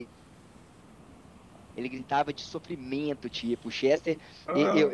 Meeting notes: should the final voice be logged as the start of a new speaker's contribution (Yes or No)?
No